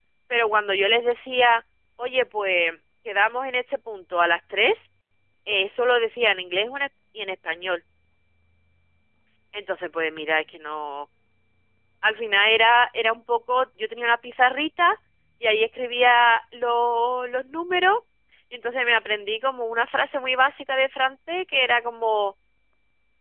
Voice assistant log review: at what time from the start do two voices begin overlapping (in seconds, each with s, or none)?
none